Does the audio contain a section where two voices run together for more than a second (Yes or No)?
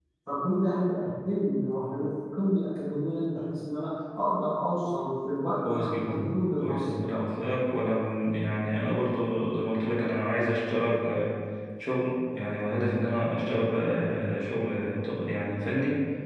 Yes